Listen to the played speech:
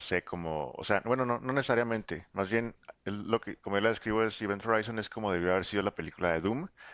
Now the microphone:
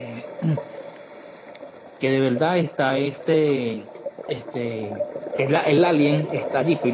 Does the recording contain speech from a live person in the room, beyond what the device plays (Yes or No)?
Yes